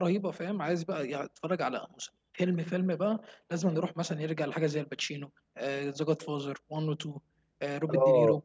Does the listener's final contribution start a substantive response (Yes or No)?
Yes